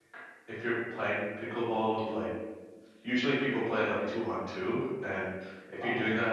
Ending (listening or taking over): listening